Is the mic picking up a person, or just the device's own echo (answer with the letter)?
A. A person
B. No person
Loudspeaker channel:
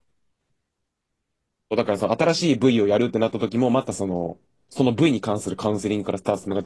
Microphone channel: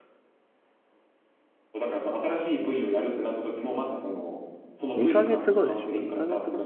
A